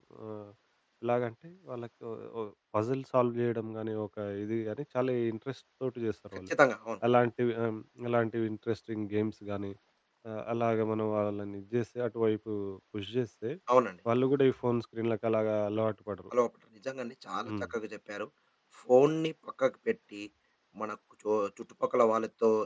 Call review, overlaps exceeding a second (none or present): none